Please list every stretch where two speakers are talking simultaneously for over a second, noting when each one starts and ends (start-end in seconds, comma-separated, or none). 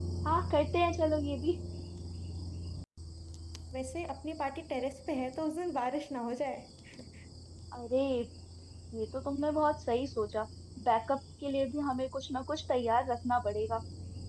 none